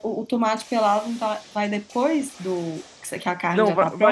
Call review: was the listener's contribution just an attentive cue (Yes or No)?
No